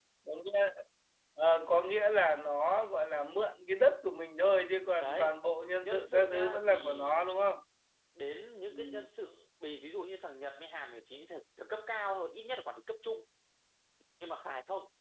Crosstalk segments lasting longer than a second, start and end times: 5.8-7.3

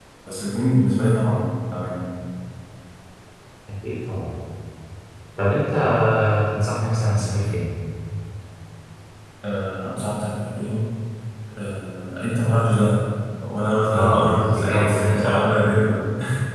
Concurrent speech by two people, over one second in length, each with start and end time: 13.9-15.6

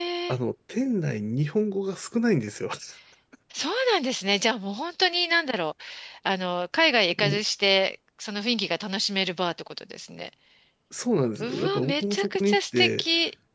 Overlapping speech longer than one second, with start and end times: 11.4-13.0

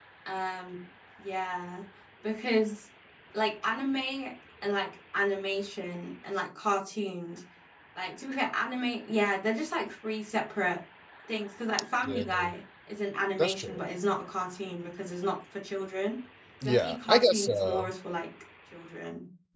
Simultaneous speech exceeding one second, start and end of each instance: 16.6-17.9

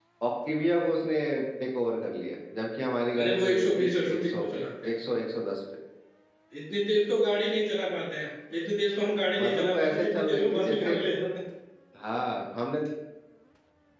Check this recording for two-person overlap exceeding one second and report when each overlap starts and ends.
3.2-5.0, 9.4-11.0

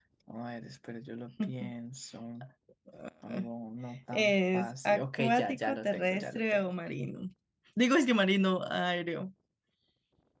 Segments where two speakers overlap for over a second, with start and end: 4.1-6.7

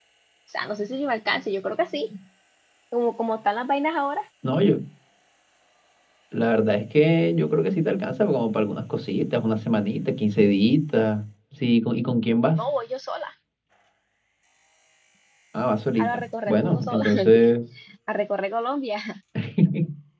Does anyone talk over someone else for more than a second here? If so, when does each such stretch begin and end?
16.0-17.4

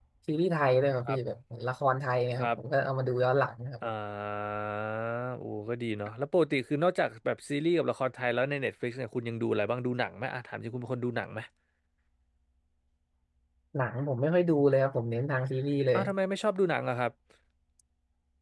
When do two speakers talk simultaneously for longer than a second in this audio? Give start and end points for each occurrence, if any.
none

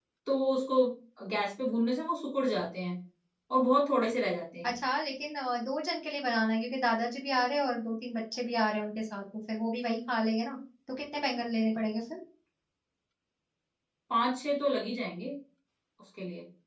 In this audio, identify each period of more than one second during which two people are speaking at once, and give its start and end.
none

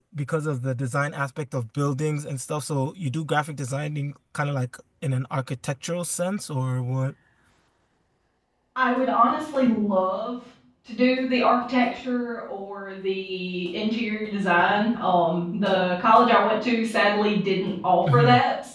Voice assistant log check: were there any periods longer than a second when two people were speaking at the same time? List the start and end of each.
none

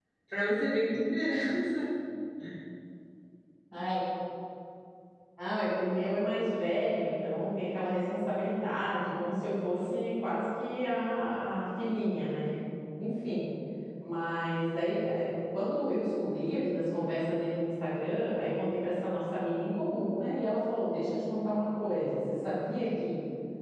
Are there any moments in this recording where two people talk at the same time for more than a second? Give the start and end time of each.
none

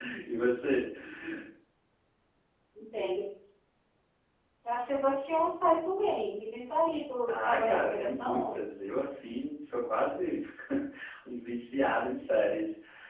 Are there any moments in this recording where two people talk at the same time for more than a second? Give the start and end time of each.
7.4-8.6

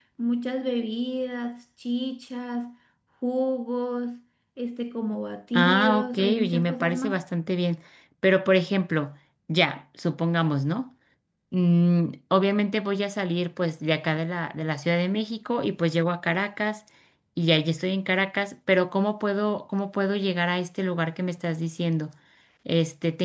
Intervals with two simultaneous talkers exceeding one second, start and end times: 5.5-7.2

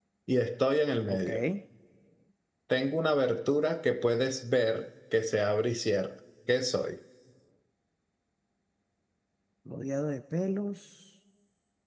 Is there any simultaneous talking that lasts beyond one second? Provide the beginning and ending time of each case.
none

